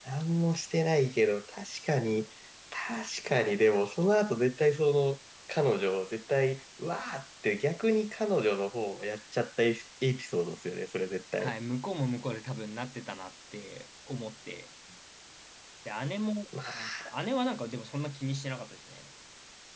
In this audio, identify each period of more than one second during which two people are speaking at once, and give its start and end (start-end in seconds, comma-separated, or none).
none